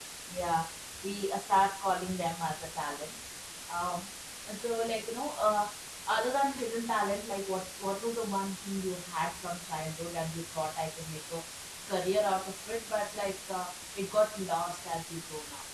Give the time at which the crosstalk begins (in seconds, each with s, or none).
none